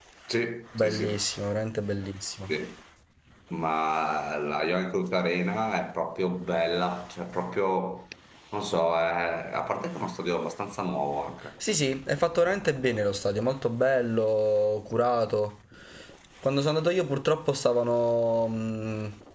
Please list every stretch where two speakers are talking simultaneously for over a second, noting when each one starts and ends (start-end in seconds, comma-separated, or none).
none